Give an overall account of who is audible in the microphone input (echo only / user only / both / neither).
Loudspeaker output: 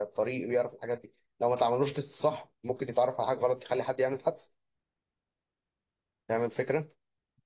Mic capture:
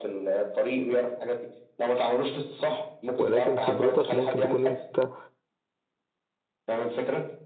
both